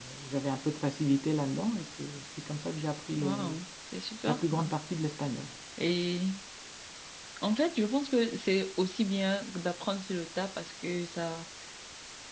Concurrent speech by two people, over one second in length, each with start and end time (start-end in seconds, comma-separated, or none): none